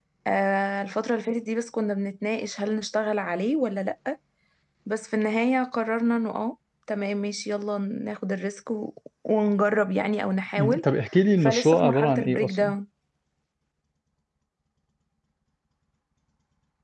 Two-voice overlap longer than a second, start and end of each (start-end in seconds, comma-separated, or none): 11.4-12.7